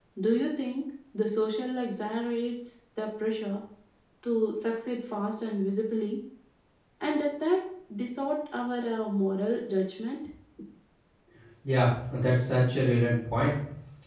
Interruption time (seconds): none

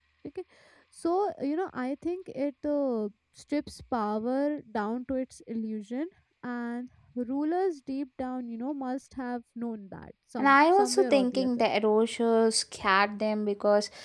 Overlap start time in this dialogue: 10.4 s

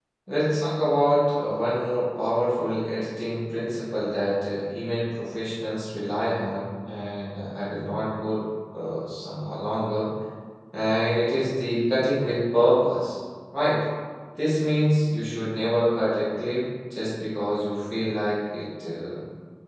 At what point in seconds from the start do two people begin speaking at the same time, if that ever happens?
none

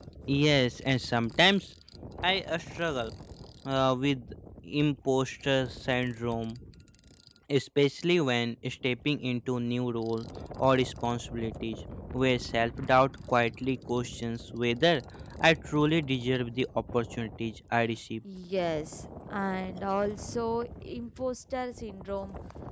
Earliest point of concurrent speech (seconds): none

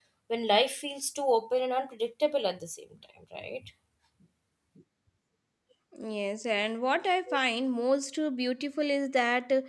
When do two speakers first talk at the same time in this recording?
none

